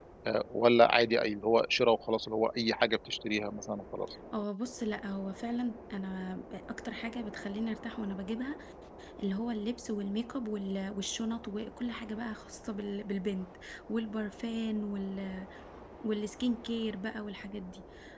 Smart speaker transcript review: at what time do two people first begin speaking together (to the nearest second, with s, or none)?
none